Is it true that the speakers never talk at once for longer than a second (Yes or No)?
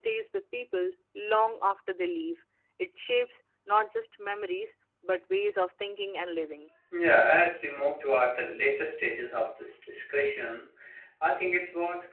Yes